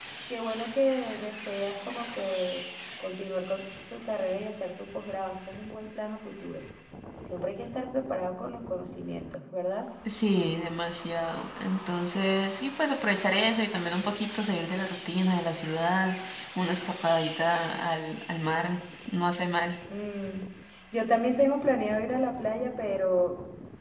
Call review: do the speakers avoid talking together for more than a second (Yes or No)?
Yes